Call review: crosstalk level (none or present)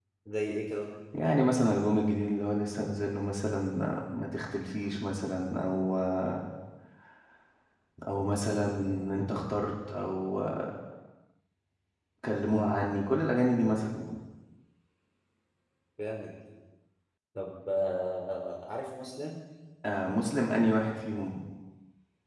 none